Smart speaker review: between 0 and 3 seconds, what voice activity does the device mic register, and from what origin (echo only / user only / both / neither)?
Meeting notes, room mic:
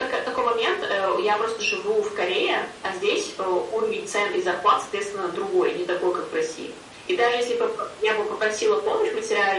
echo only